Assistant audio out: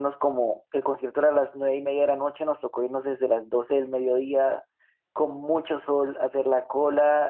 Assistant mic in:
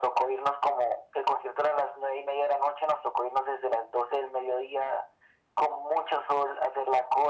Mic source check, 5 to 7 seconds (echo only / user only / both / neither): echo only